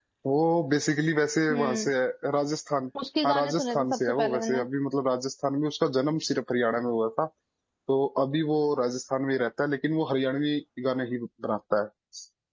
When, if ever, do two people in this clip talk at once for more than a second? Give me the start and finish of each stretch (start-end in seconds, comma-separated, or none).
3.2-4.7